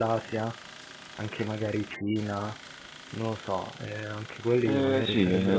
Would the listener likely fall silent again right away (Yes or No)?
No